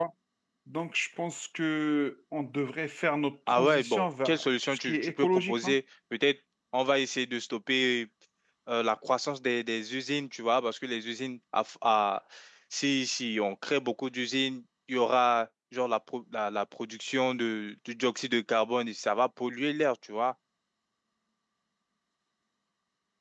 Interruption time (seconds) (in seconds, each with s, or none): 3.5 s